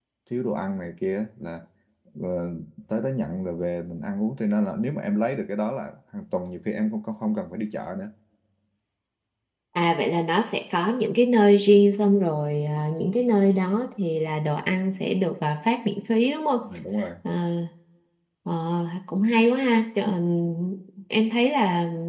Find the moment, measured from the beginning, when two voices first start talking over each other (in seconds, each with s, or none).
none